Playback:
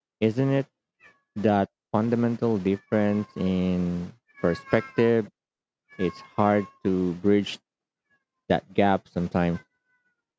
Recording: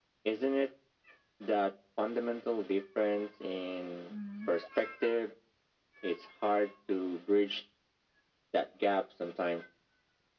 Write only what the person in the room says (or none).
Mm.